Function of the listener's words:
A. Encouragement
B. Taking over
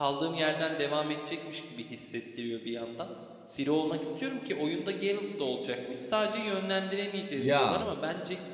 A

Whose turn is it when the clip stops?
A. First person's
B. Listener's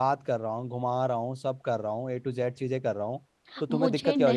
B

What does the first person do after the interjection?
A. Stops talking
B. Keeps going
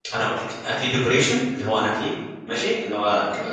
B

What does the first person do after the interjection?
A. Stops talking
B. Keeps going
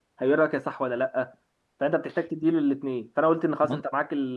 B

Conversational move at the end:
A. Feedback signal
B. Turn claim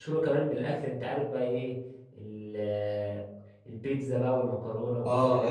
B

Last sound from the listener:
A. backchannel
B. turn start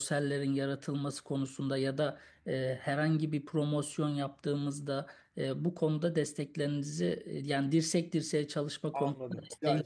B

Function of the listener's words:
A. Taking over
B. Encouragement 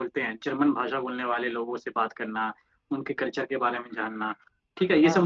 B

